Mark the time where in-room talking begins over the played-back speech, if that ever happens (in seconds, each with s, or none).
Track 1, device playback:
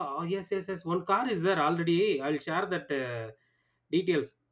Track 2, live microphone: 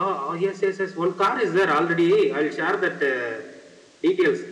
none